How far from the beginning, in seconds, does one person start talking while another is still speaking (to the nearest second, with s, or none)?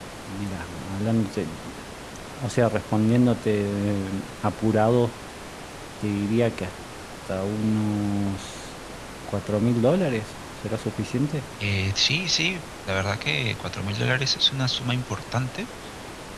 none